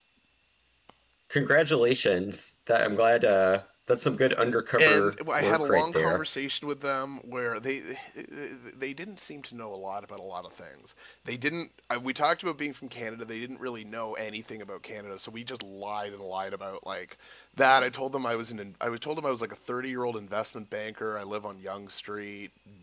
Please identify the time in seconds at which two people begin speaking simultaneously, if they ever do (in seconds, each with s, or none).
4.8 s